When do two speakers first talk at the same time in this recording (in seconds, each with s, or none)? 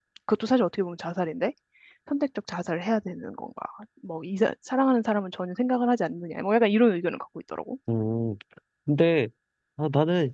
none